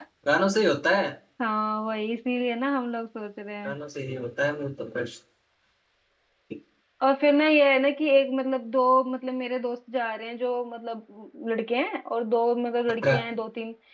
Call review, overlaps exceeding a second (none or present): none